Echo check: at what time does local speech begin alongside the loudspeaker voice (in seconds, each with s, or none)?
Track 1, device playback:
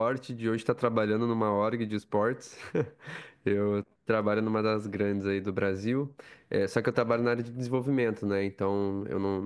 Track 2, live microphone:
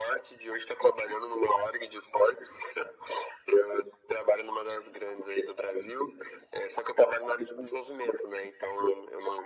none